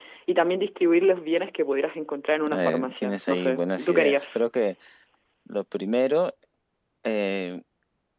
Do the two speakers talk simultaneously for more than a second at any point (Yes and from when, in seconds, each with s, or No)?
Yes, from 2.4 s